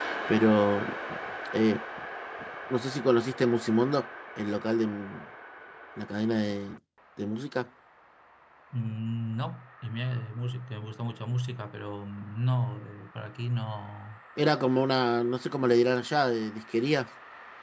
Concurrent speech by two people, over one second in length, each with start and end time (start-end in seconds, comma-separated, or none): none